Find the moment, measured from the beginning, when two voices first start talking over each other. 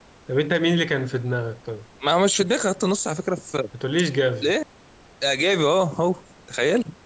none

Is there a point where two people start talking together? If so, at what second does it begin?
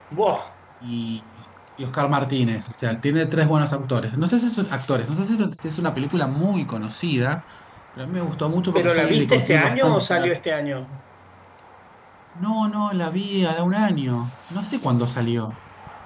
8.8 s

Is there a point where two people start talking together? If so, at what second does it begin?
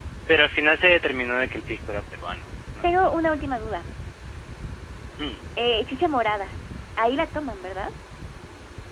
none

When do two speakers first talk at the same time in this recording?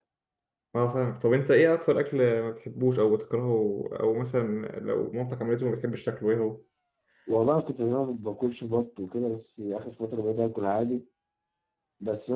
none

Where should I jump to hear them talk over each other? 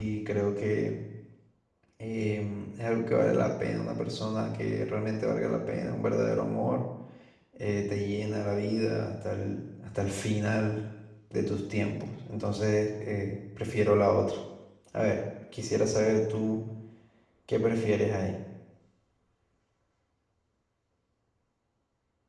none

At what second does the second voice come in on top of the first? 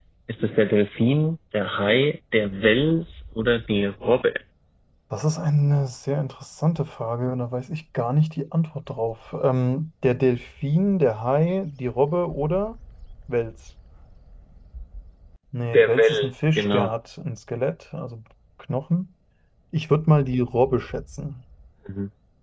15.6 s

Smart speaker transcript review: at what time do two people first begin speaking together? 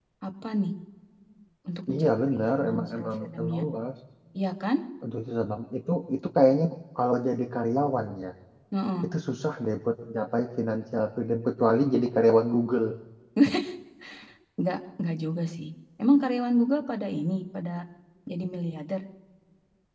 1.9 s

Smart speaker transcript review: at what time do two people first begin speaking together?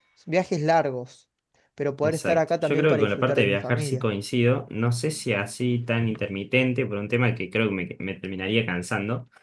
2.0 s

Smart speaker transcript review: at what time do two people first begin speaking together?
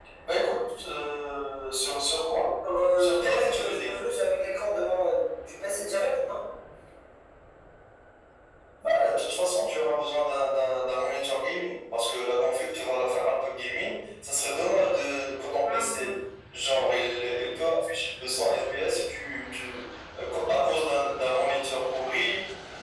2.7 s

